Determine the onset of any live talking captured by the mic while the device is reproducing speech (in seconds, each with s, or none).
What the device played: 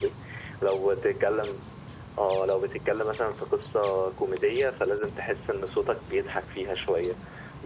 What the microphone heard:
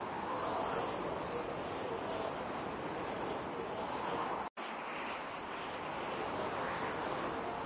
none